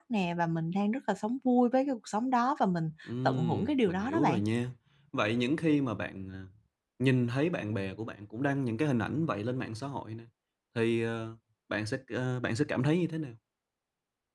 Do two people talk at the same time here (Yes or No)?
Yes